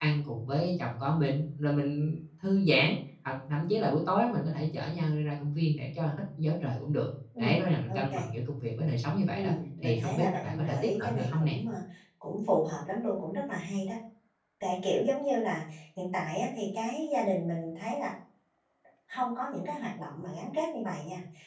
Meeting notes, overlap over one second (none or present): present